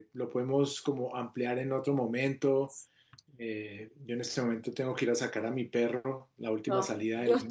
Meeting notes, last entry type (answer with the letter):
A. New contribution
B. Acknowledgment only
A